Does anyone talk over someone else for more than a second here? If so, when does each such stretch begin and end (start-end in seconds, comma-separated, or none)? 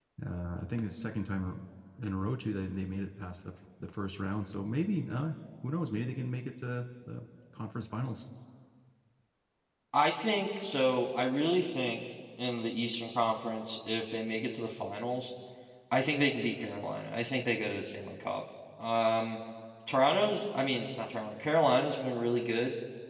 none